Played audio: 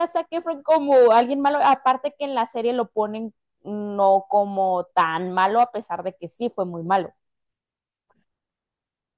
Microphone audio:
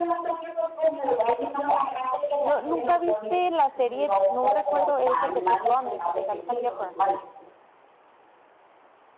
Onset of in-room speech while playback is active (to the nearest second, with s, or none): 2 s